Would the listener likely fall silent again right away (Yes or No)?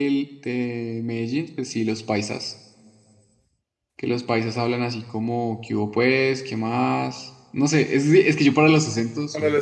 No